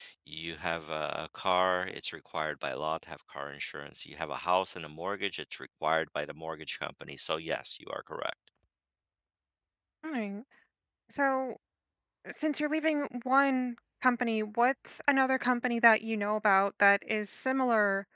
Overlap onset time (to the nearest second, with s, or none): none